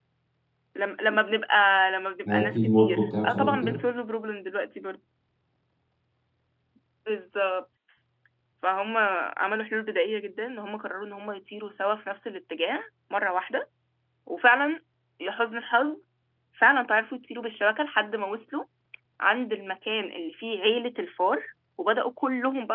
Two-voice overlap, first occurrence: 2 s

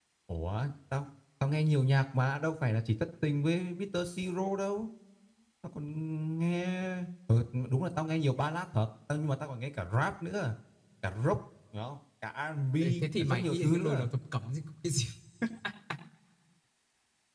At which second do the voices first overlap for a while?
13 s

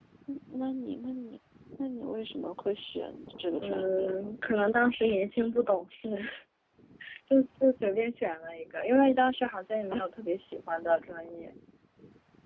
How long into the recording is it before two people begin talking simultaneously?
4 s

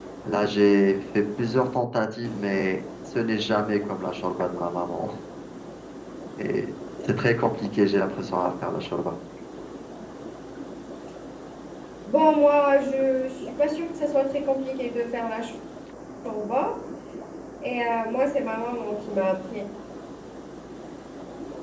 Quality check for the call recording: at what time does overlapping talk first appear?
none

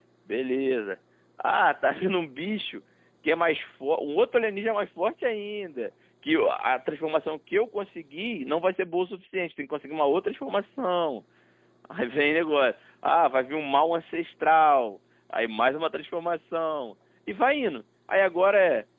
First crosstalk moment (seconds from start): none

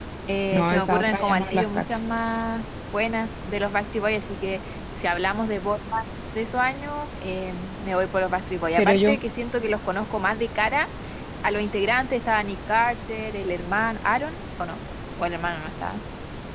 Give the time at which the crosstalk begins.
1 s

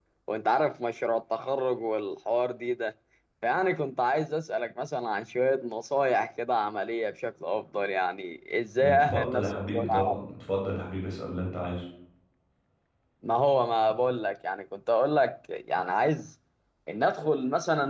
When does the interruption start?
9 s

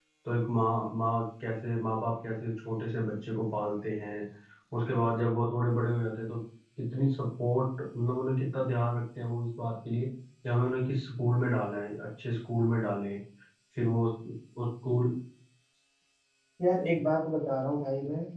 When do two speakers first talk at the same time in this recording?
none

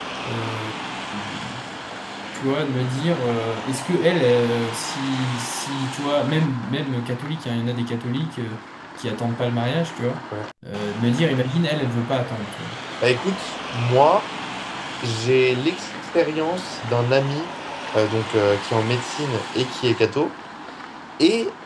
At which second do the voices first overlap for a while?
none

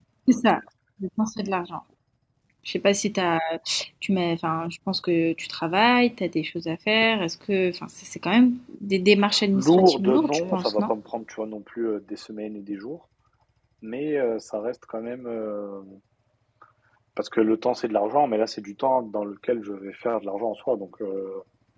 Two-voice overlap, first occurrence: 9 s

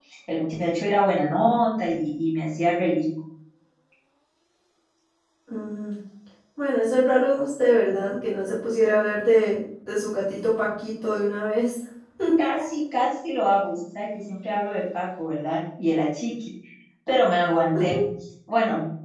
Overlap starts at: none

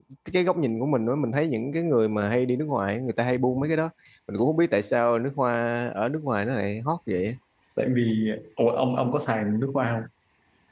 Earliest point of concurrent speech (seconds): none

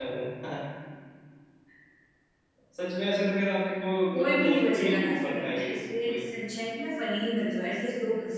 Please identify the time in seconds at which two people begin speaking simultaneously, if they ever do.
4 s

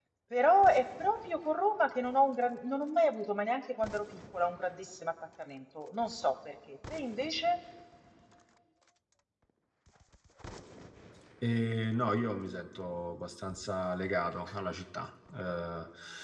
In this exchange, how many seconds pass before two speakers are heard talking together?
none

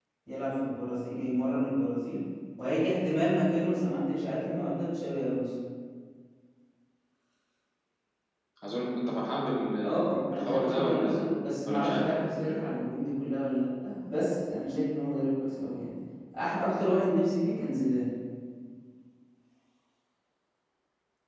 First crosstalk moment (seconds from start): 10 s

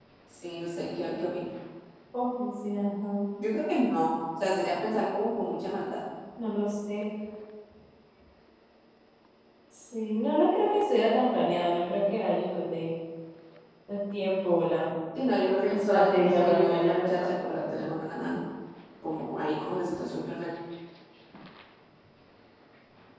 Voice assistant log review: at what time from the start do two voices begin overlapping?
16 s

